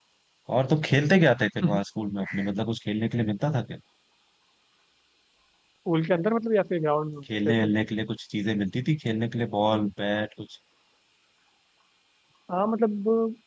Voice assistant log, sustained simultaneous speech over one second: none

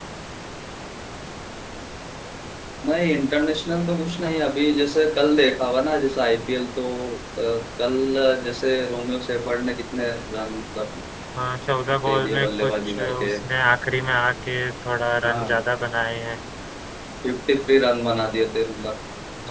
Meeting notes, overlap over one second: present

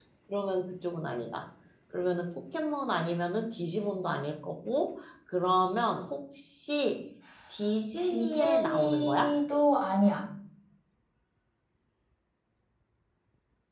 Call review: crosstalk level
present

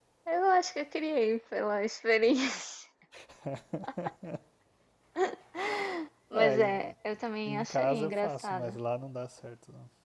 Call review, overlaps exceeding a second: present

